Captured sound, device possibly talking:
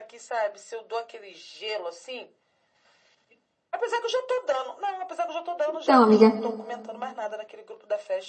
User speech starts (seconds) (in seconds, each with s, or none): 5.7 s